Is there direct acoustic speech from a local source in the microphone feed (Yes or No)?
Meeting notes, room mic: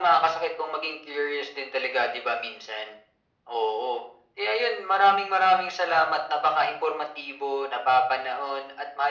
No